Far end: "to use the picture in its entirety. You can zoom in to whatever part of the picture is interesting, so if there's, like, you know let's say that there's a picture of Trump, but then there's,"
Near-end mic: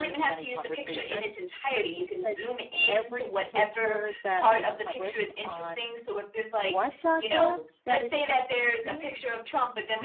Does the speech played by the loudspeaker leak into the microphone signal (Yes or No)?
Yes